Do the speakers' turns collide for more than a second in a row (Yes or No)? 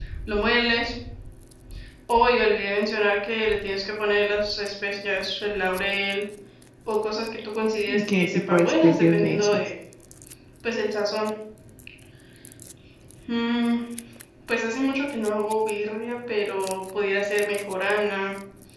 Yes